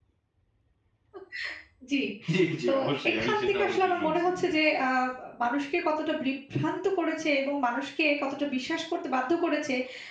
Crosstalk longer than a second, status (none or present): present